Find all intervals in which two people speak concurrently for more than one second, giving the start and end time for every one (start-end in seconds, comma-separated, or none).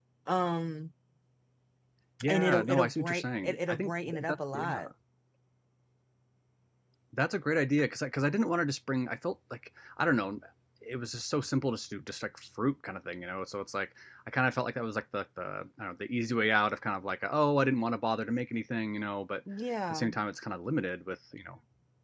2.3-4.8